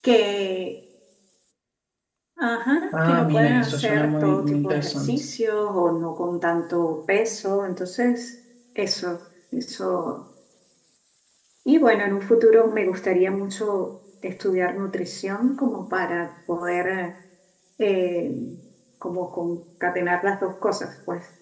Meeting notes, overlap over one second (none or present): present